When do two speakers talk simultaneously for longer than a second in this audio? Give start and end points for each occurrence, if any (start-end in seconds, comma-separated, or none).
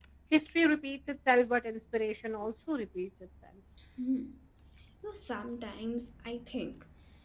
none